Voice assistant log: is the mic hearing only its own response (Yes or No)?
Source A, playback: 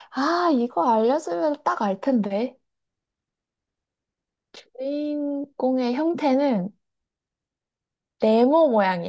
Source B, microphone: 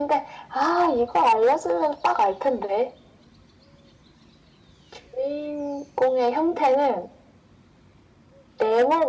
Yes